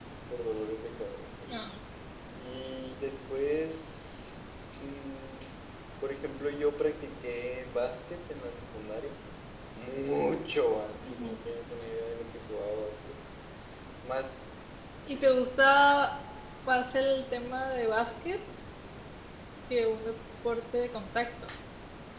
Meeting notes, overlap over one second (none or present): none